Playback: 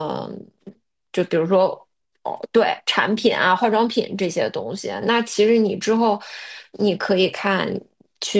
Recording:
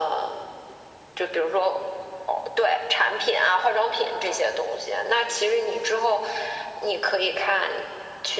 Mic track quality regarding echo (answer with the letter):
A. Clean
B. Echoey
B